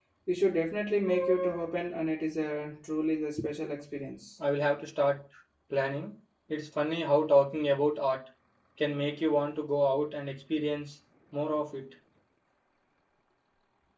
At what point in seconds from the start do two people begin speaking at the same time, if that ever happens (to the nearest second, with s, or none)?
none